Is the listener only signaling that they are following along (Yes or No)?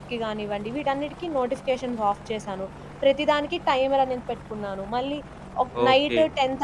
No